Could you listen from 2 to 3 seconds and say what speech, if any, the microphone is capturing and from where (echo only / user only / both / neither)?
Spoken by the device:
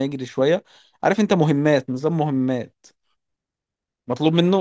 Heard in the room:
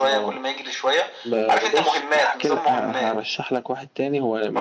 both